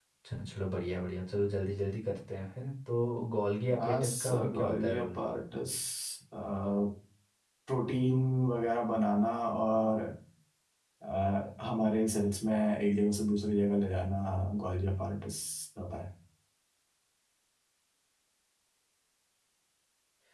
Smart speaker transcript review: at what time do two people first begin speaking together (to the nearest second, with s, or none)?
4 s